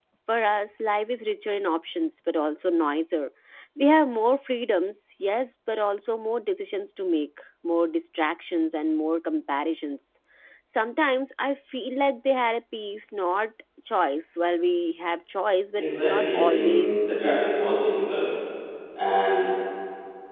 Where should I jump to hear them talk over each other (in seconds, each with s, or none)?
15.8 s